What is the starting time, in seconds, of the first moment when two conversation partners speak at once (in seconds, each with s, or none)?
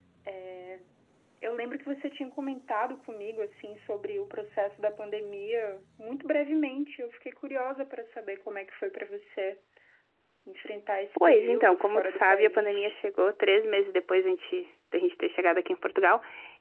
11.2 s